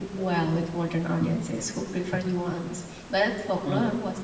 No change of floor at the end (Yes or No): Yes